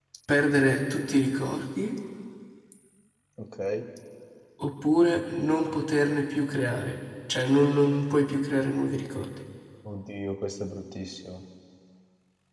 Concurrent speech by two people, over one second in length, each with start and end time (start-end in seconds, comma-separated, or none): none